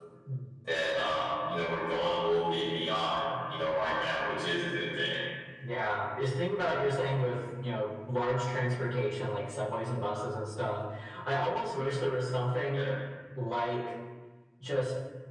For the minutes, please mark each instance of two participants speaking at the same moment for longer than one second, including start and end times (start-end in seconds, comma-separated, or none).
none